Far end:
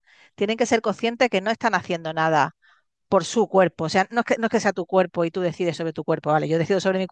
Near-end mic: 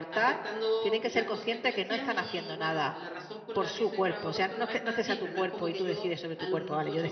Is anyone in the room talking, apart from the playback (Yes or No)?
Yes